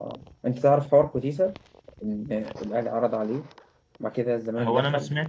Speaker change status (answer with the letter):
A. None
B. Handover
B